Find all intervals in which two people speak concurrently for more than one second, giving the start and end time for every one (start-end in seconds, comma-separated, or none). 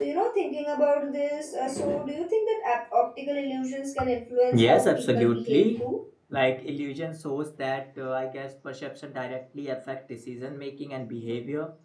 4.5-5.8